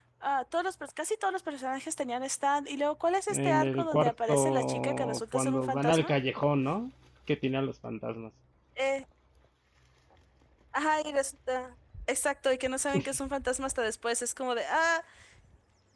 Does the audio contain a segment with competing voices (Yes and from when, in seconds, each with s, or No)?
Yes, from 3.3 s